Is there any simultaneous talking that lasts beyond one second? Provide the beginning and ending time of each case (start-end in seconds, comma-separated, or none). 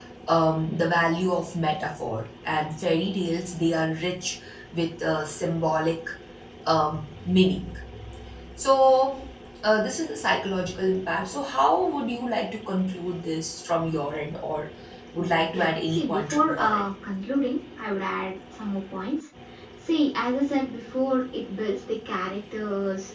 15.5-16.9